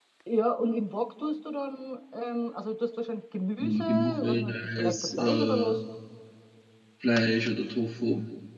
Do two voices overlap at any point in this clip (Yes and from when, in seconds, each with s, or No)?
Yes, from 3.6 s